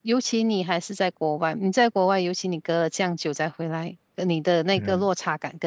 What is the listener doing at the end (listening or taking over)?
listening